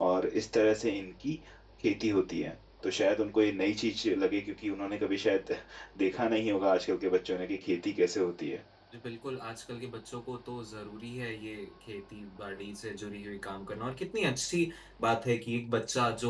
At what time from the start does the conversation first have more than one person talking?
none

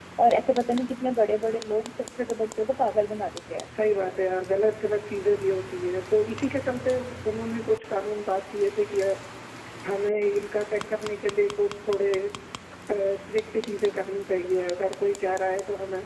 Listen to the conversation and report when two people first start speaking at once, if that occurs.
none

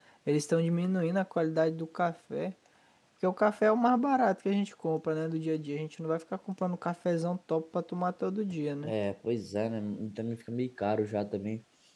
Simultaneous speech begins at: none

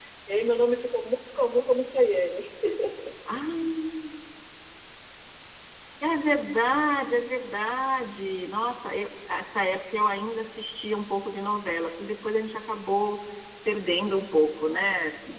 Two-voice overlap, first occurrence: none

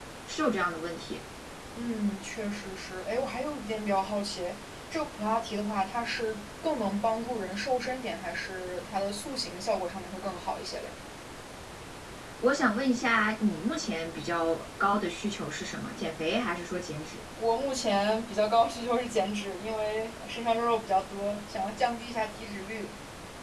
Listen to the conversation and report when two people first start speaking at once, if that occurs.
none

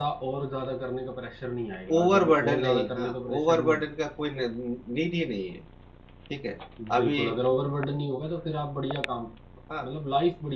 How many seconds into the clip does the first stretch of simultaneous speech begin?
1.9 s

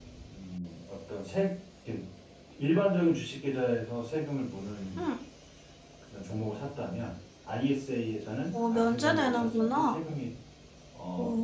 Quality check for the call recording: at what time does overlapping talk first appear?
8.5 s

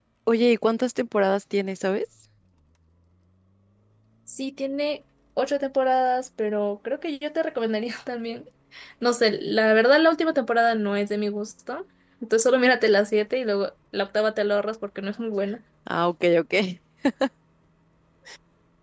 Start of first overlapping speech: none

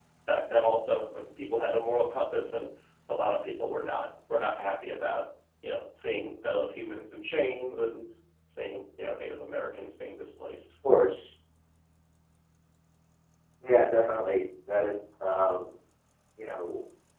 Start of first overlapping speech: none

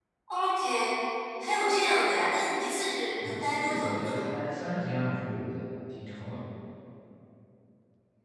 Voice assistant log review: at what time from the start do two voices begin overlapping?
3.2 s

